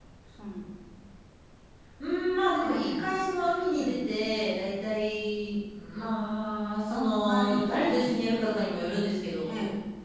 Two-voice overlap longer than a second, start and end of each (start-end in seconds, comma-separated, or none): 6.9-8.2